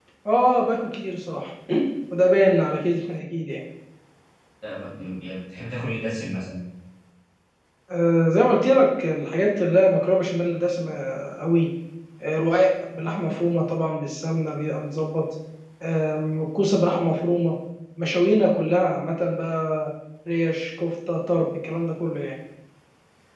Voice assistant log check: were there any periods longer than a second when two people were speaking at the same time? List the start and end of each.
none

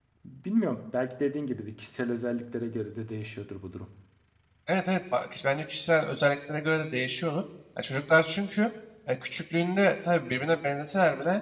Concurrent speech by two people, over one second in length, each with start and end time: none

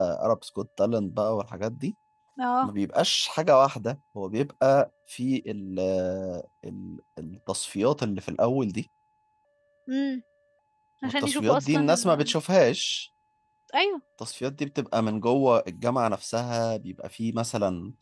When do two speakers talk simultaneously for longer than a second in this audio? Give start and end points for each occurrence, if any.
11.0-12.3

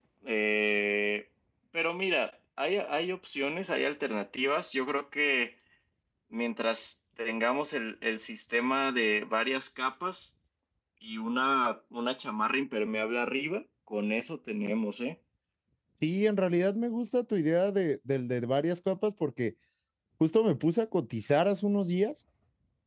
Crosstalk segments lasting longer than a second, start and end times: none

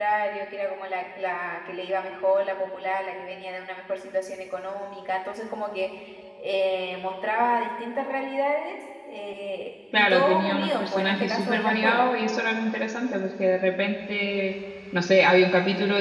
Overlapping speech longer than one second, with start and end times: 10.0-12.1

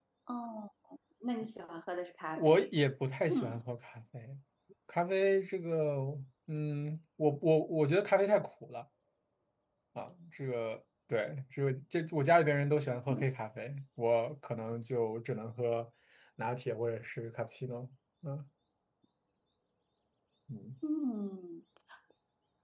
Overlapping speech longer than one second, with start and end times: none

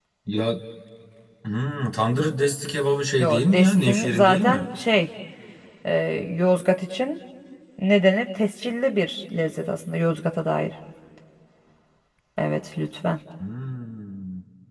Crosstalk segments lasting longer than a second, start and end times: 3.2-4.6

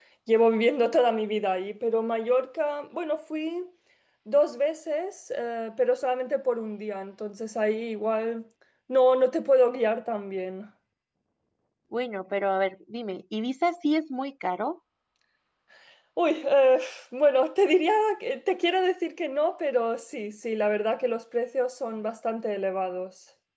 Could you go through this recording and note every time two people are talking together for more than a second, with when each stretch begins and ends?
none

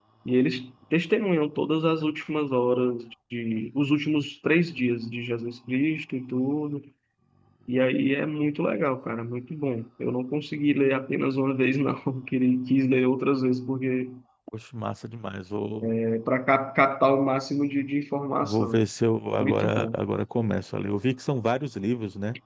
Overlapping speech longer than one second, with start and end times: none

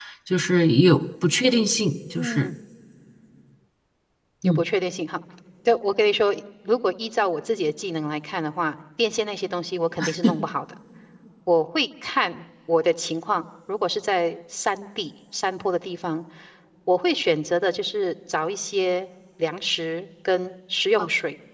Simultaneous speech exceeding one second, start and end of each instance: none

